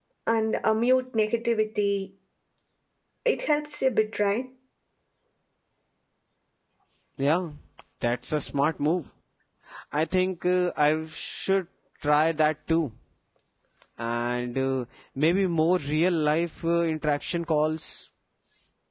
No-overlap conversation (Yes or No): Yes